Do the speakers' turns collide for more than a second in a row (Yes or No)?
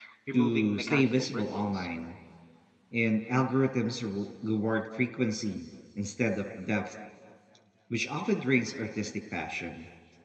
Yes